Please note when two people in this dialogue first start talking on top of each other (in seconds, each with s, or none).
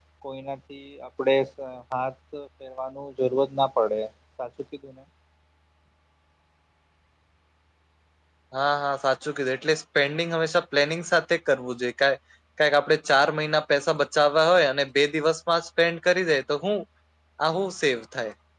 none